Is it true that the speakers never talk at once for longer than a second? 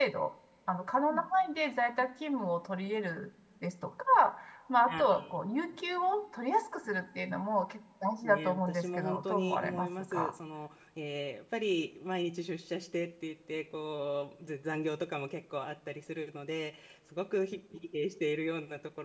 No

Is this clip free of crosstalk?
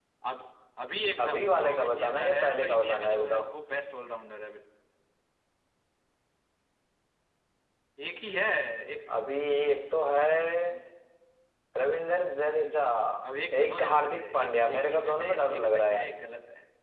No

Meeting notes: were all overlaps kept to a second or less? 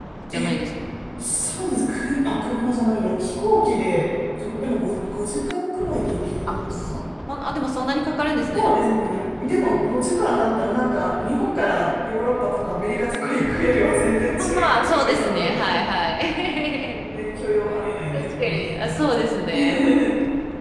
No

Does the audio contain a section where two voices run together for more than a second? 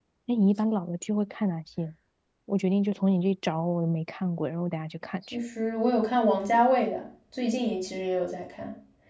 No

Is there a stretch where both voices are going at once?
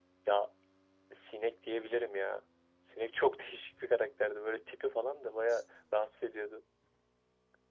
No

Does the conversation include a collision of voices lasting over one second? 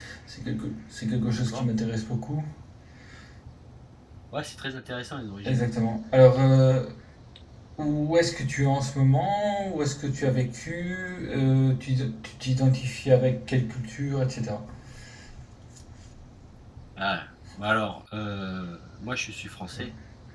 No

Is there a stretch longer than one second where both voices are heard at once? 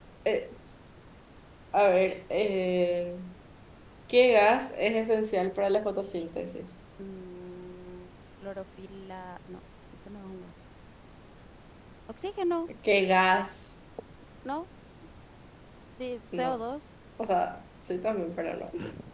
No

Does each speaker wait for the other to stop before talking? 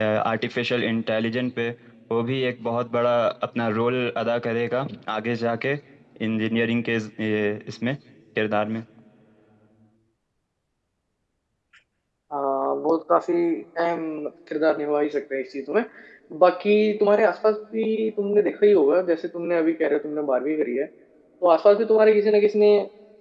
Yes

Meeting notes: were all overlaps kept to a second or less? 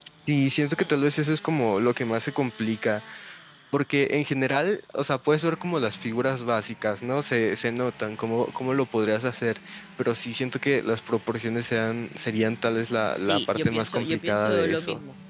No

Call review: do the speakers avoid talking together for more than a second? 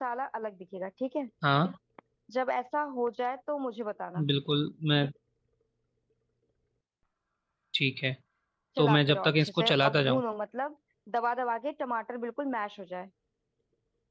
No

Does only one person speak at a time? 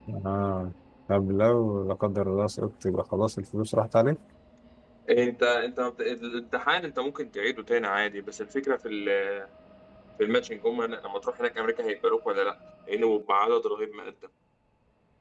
Yes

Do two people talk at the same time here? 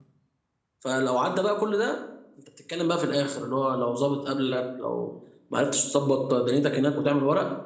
No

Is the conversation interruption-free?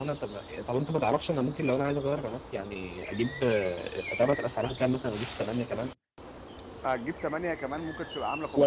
Yes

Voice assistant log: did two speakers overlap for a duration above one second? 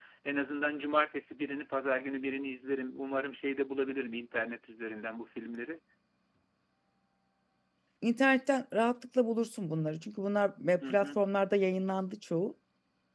No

